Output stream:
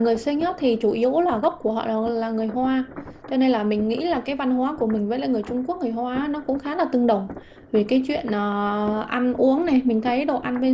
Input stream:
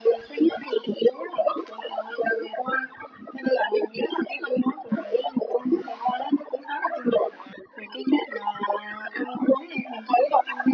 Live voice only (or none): none